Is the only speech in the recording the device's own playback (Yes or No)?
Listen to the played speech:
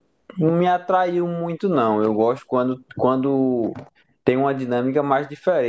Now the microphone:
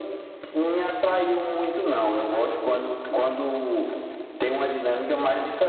Yes